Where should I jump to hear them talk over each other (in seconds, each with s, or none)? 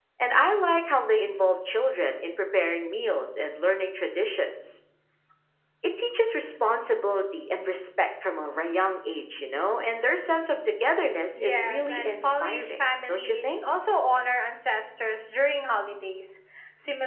11.4 s